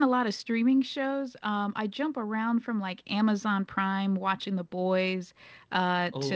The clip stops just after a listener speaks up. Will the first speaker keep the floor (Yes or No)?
Yes